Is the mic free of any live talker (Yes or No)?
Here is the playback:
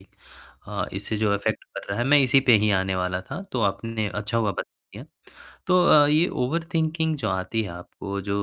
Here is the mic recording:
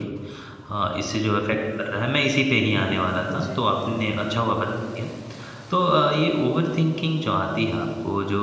No